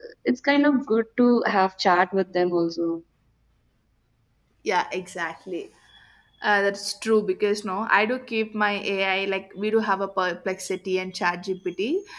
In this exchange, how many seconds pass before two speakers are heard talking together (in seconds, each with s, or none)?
none